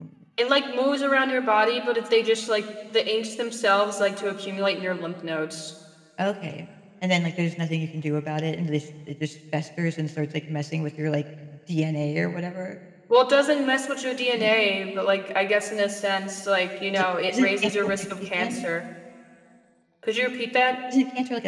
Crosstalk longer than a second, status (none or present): present